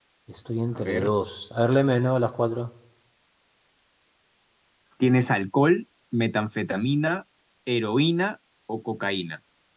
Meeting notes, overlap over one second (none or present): none